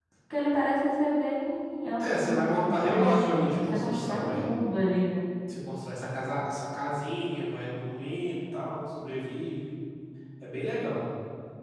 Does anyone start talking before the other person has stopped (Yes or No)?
Yes